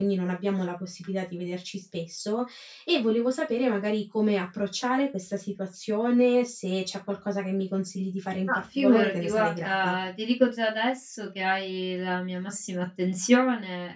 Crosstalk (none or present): present